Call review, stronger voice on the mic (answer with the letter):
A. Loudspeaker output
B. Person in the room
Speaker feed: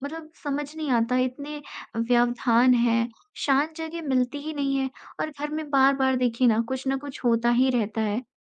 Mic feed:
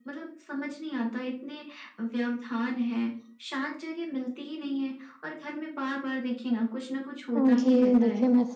B